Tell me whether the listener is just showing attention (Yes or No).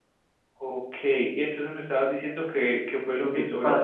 No